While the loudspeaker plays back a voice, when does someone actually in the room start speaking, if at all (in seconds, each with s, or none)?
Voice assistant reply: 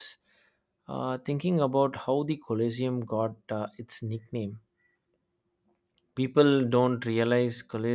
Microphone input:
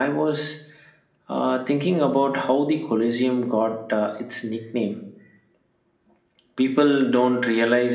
none